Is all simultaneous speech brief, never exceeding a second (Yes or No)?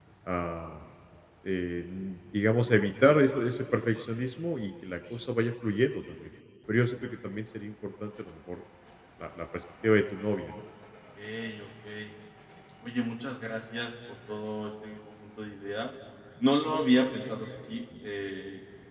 Yes